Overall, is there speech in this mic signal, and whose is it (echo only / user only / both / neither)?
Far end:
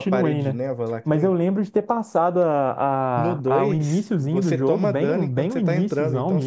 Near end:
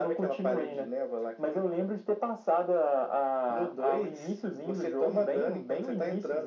echo only